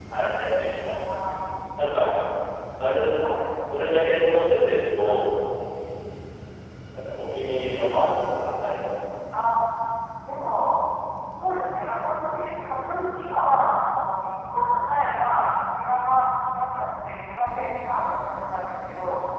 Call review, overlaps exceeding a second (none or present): none